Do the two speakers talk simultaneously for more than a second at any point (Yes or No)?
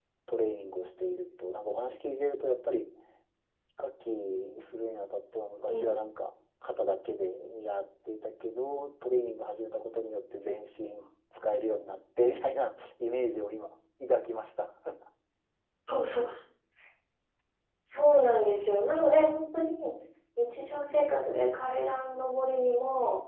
No